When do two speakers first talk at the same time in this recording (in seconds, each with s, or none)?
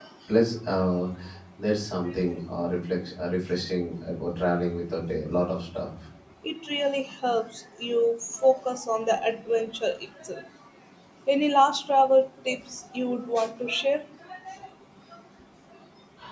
none